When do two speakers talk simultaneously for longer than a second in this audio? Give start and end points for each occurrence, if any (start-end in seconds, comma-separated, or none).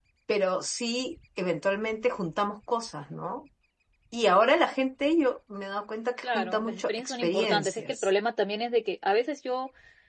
6.2-8.1